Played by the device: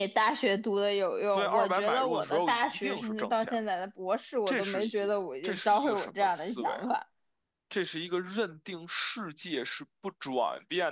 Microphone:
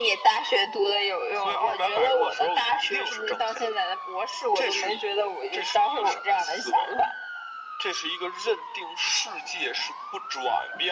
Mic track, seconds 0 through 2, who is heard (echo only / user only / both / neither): echo only